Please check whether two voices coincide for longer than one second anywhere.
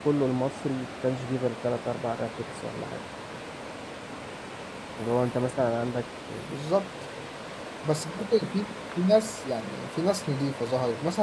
No

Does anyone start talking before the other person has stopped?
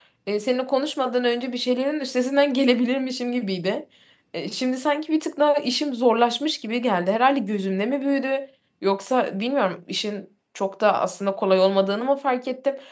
No

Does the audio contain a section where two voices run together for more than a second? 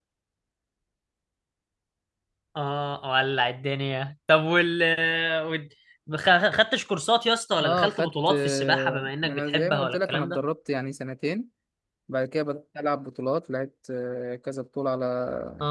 Yes, from 7.6 s

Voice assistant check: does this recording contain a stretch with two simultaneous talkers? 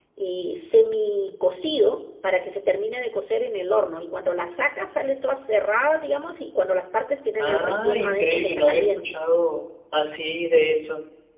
Yes, from 7.4 s

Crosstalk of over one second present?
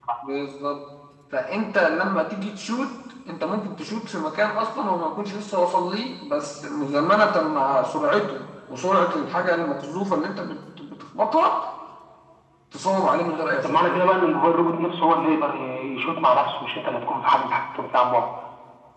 No

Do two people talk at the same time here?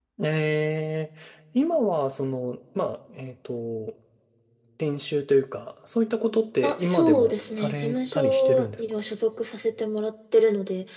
Yes, from 6.6 s

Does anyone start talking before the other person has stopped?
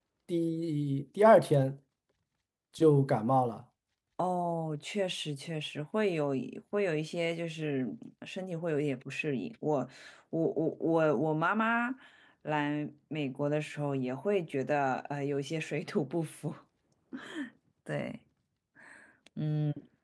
No

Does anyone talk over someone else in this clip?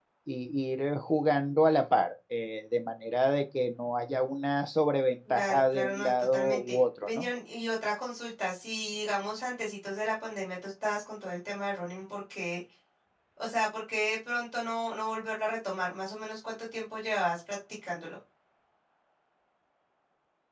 Yes, from 5.2 s

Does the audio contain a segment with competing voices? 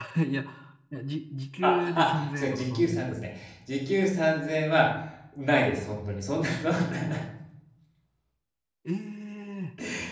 Yes, from 1.6 s

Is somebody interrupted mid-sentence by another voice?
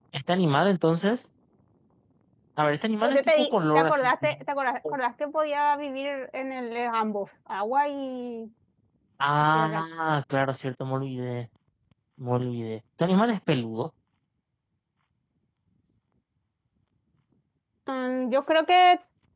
Yes, from 3.0 s

